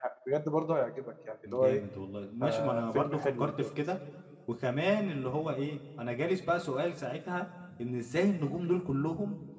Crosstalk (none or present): present